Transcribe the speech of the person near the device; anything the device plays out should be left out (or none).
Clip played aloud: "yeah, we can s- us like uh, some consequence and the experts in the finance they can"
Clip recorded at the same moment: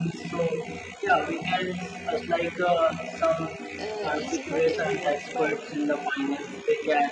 uh, easy for everyone but